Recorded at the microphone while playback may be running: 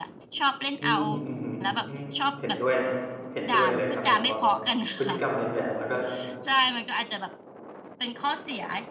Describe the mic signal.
both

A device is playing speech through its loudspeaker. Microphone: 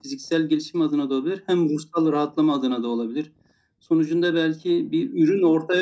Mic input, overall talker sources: echo only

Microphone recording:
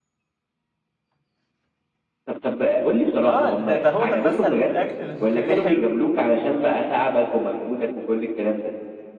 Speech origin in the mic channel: both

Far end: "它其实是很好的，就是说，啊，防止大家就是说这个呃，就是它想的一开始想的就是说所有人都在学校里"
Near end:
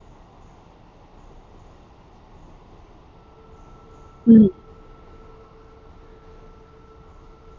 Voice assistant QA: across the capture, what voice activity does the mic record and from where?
user only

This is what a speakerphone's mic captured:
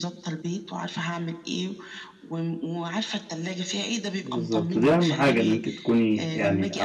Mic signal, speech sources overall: both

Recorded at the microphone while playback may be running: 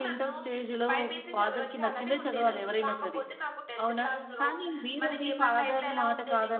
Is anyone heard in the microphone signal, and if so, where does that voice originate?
both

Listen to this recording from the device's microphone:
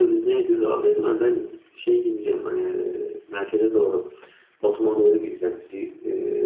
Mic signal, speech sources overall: echo only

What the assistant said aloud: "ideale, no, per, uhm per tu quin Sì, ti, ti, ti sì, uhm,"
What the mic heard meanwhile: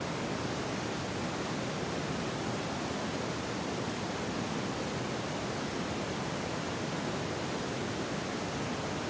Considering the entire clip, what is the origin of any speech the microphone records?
neither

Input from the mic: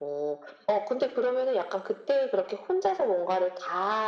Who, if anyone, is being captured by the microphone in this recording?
echo only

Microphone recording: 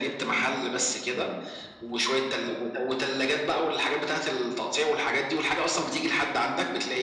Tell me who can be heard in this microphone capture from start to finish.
both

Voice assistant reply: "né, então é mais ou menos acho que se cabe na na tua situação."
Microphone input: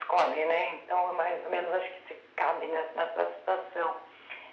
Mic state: echo only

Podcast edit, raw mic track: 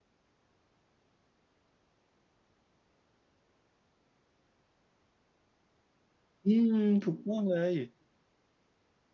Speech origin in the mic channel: user only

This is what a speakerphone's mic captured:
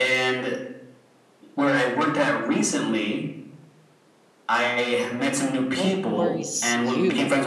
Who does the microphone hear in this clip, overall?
both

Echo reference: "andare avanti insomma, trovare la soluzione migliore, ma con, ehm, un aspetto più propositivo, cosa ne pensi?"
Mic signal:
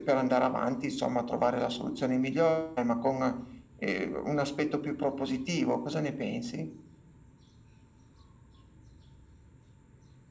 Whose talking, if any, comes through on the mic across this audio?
echo only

